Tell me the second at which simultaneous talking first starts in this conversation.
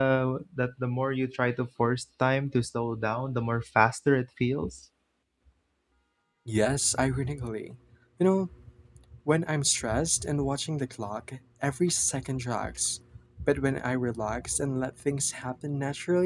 none

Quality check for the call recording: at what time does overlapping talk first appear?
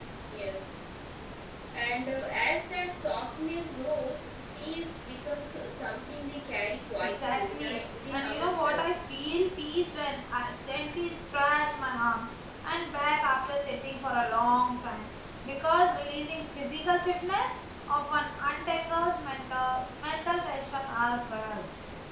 7.0 s

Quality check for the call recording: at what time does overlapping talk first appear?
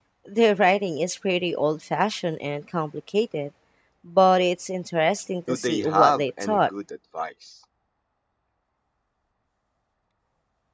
5.5 s

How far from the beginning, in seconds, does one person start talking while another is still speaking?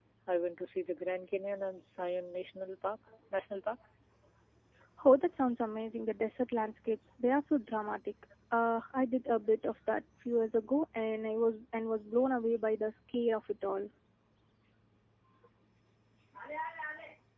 none

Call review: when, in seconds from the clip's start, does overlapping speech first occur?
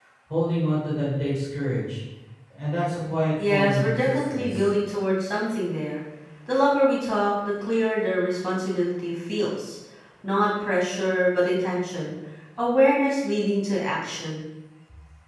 3.4 s

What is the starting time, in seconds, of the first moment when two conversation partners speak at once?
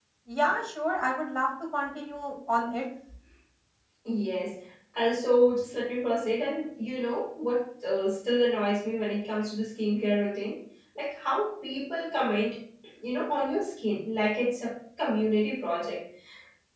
none

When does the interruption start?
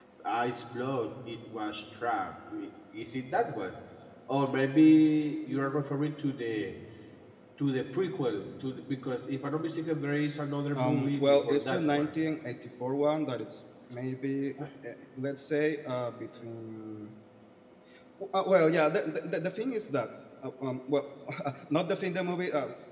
10.8 s

